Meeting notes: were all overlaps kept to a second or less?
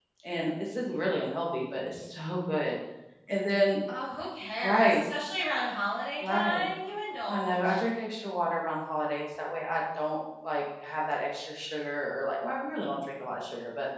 Yes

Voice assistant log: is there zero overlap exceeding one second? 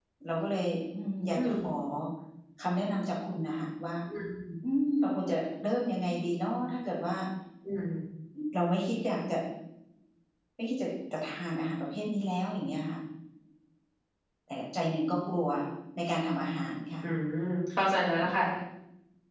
Yes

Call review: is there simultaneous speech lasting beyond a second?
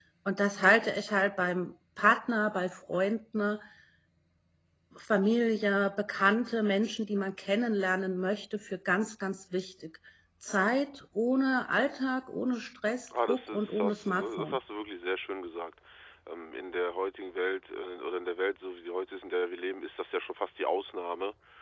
Yes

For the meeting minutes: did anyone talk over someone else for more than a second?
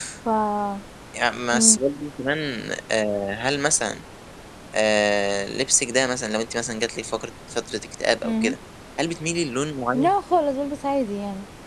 No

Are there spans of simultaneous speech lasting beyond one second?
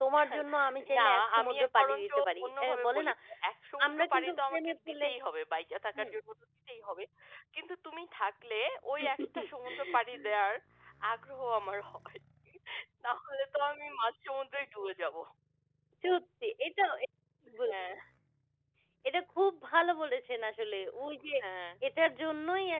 Yes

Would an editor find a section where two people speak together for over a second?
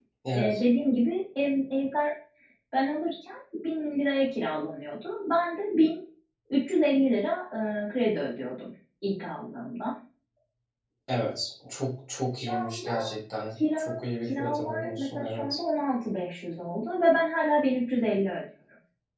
Yes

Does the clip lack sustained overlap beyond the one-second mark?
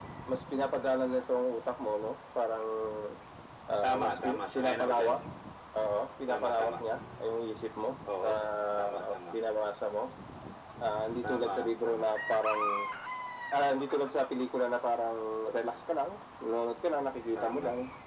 No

